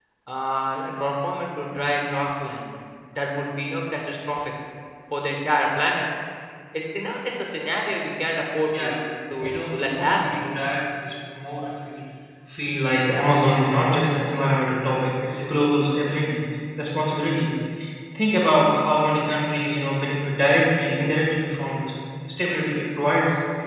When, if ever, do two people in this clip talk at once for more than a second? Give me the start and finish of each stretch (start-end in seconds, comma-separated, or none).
9.4-10.7